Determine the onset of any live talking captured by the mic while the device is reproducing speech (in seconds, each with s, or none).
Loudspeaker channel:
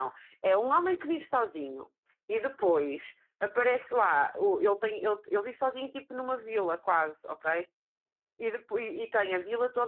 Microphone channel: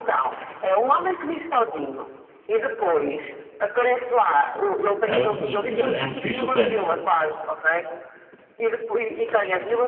5.0 s